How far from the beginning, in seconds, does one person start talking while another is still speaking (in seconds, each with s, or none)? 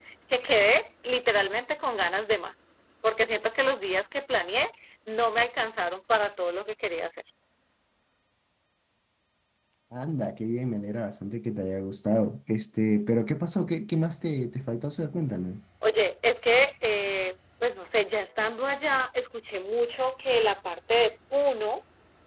none